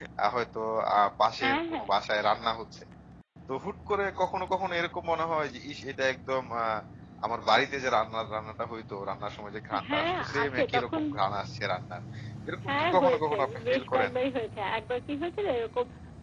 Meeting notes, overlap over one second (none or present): present